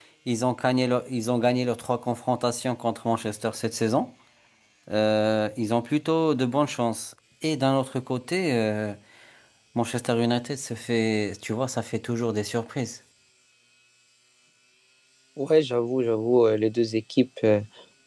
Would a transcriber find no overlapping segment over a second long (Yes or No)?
Yes